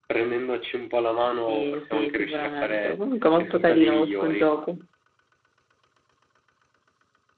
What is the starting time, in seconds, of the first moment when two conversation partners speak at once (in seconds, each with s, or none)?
1.5 s